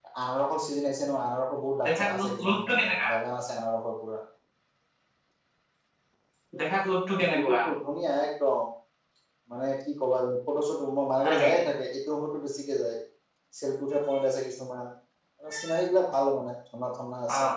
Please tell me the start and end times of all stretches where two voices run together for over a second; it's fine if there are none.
1.9-3.1

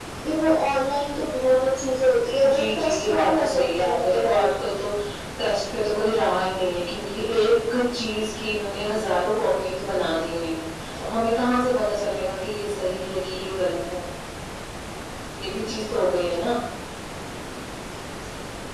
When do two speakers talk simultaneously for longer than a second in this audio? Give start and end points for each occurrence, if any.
2.5-4.4

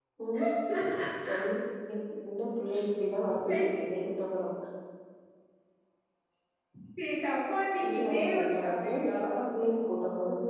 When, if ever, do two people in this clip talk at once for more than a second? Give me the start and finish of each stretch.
7.9-9.2

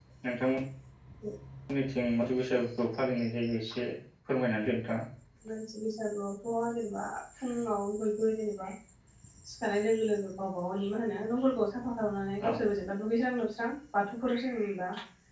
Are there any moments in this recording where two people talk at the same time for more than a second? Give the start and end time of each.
none

